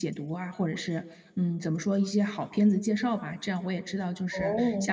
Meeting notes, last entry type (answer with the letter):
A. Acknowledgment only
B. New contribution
A